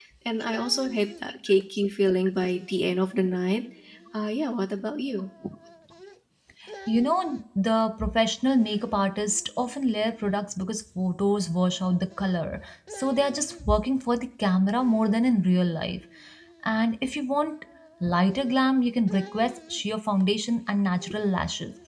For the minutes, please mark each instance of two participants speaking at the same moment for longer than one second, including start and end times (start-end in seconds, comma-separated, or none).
none